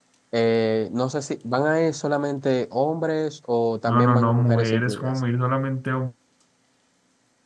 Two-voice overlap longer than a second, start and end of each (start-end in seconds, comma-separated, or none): 3.9-5.2